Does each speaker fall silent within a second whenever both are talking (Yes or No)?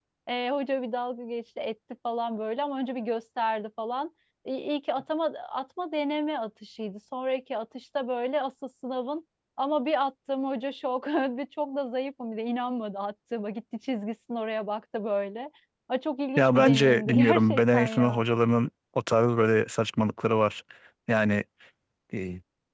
No